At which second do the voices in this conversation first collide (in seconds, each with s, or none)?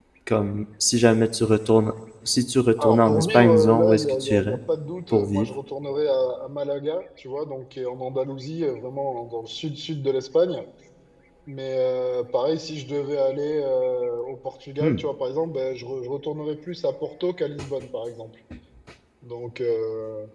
2.8 s